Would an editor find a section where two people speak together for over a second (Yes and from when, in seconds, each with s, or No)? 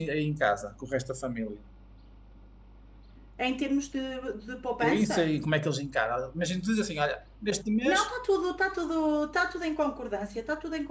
No